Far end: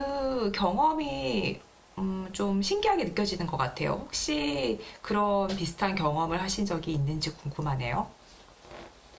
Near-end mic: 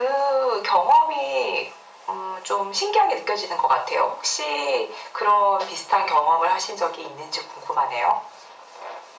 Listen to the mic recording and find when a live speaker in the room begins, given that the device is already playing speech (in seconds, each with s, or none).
none